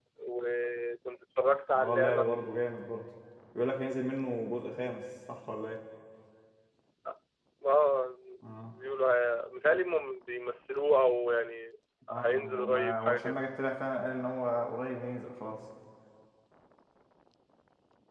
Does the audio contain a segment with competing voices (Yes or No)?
Yes